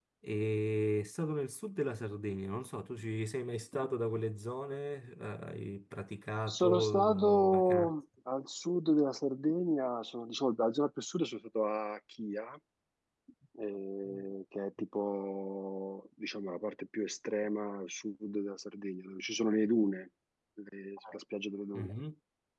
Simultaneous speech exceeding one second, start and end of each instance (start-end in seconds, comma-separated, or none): 6.5-7.9